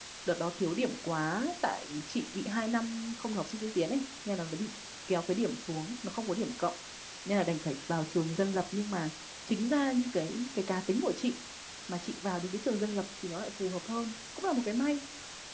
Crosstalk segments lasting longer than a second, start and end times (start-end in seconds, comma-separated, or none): none